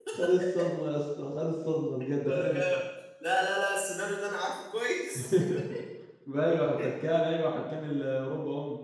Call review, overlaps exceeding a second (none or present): none